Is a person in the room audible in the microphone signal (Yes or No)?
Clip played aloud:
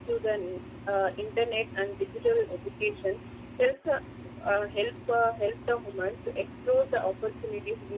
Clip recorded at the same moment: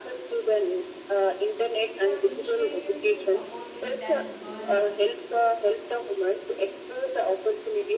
Yes